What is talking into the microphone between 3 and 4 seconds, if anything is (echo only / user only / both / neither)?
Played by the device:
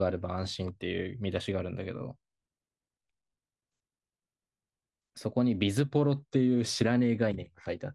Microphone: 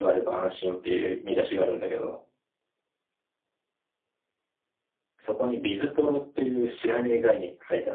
neither